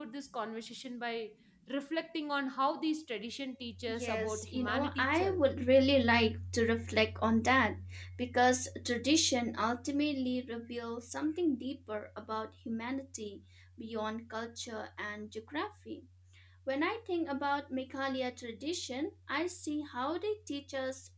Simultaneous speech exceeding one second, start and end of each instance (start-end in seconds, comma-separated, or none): 3.9-5.4